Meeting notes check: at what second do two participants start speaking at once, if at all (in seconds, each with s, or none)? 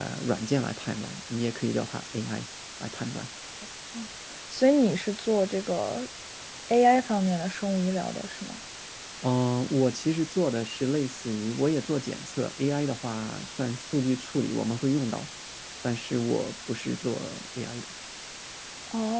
none